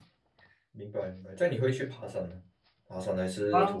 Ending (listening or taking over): taking over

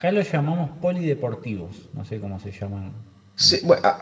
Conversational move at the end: taking over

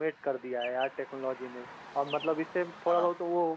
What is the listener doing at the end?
listening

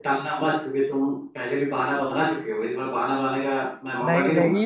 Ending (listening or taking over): taking over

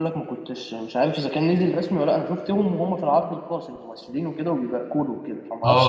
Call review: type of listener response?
taking over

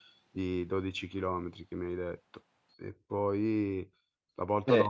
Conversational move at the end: listening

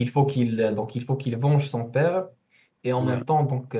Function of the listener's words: listening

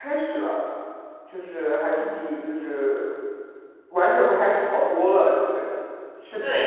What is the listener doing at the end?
taking over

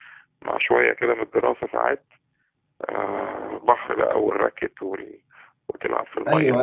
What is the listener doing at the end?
taking over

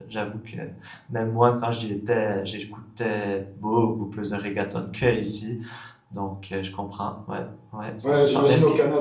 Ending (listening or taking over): taking over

